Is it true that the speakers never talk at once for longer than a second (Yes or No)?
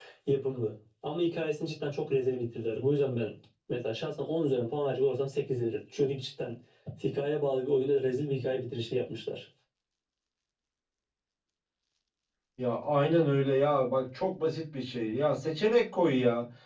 Yes